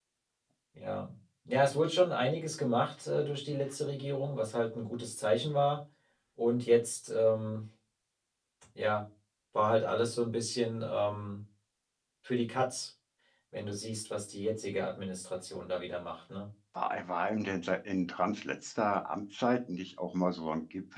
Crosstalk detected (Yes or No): No